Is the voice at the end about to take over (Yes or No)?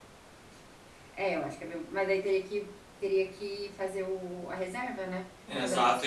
Yes